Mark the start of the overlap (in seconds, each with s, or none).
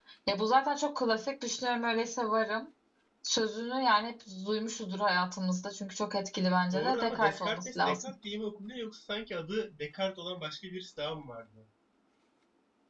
6.7 s